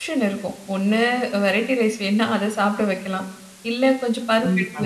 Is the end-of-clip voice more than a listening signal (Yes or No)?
No